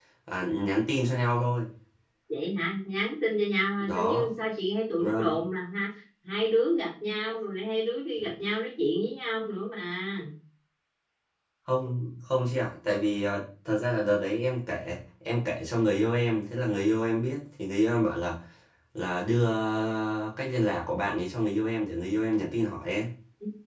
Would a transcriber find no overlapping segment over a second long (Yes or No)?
Yes